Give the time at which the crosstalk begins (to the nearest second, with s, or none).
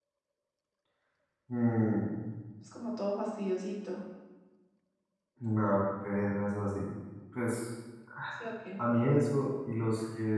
none